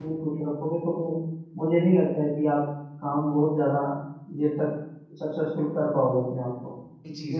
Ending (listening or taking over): taking over